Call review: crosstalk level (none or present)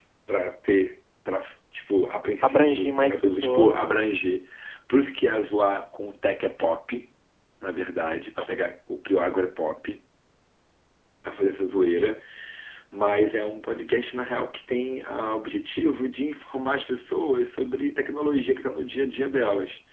present